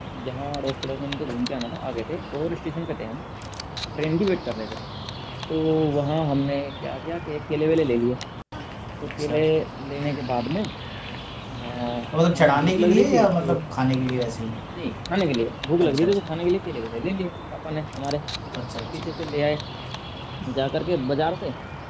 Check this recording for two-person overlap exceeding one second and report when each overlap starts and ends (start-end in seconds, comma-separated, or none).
12.3-13.6